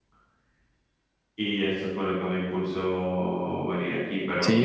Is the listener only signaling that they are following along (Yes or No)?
No